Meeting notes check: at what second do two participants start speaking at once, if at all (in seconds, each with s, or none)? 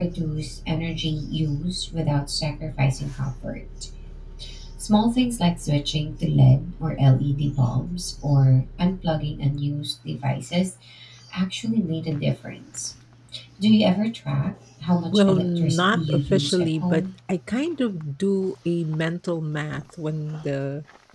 15.1 s